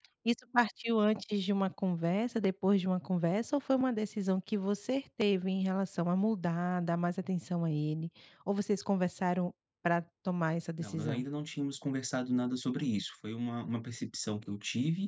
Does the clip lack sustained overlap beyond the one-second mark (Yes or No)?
Yes